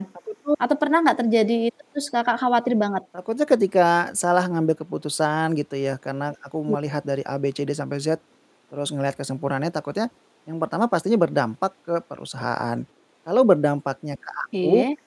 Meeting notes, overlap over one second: none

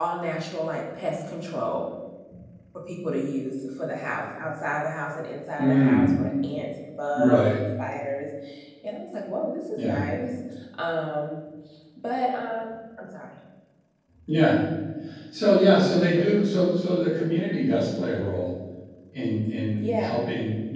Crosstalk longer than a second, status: none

